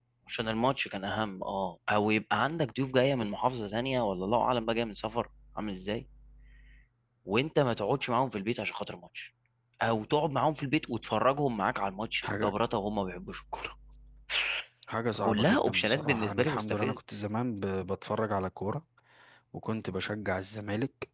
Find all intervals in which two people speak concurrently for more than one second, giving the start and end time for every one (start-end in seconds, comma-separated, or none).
15.1-17.0